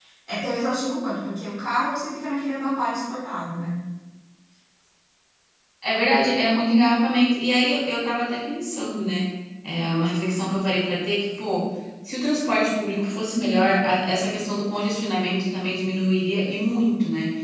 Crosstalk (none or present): none